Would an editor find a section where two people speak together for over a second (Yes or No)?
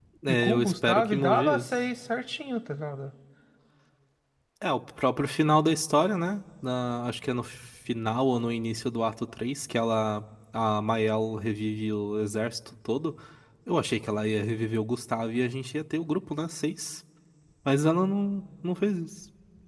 Yes